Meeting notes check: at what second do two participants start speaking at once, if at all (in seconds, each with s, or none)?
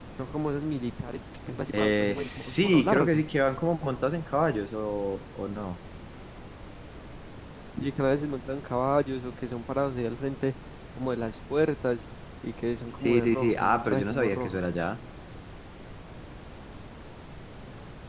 1.7 s